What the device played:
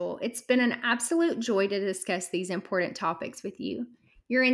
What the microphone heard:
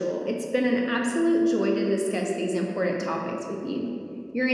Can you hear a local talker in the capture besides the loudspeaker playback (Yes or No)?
No